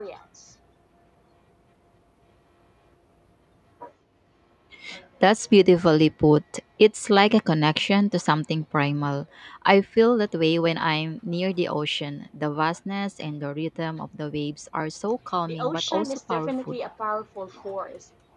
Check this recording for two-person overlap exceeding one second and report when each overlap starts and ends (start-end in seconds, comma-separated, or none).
15.5-16.8